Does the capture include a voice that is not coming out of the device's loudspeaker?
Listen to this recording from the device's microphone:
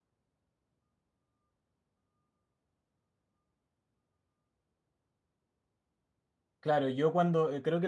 Yes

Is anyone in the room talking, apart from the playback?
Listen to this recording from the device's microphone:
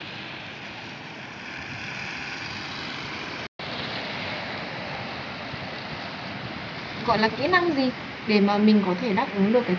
Yes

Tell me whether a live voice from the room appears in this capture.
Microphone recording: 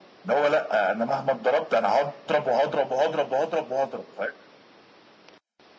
No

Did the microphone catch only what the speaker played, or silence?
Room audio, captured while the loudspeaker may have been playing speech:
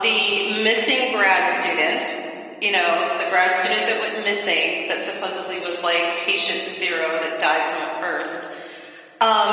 Yes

